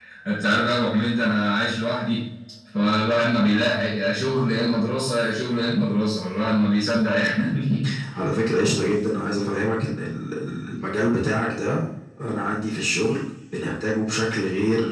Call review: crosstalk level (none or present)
none